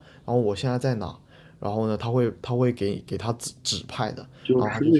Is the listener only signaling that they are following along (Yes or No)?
No